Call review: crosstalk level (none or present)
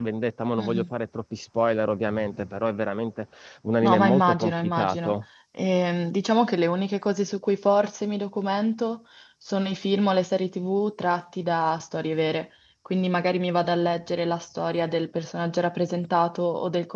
present